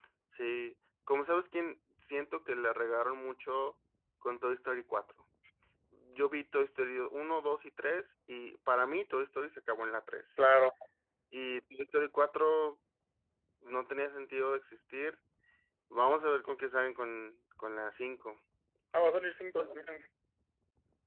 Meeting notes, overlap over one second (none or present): none